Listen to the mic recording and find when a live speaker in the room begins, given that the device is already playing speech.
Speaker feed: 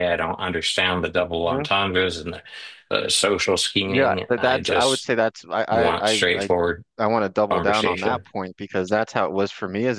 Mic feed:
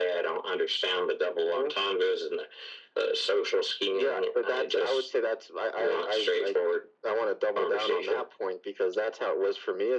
none

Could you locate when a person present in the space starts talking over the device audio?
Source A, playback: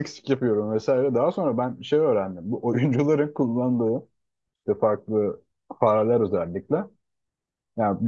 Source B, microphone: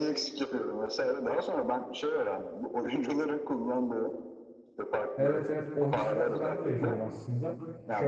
5.2 s

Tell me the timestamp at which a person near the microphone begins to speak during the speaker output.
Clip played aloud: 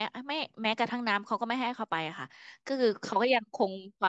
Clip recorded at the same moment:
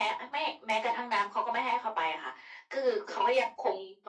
none

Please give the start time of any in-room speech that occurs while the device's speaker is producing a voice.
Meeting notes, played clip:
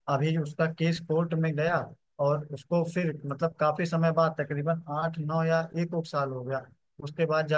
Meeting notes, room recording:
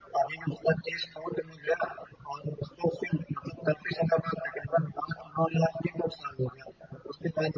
none

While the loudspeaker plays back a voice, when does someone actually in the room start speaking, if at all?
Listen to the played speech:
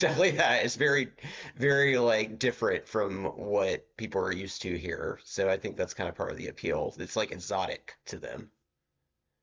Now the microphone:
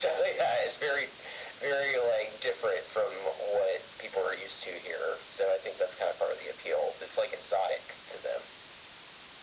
none

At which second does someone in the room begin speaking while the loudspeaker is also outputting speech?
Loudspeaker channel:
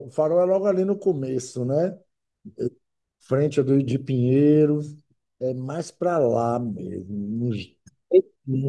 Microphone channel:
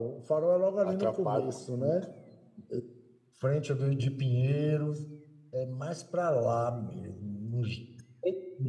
0.8 s

